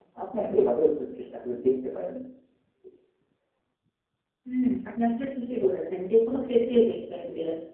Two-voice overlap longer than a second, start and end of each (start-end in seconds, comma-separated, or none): none